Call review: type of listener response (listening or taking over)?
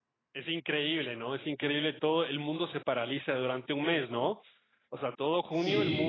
taking over